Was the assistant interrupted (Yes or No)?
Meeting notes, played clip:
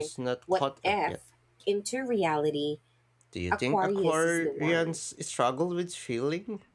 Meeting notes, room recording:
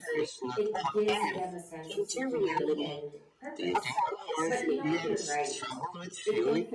Yes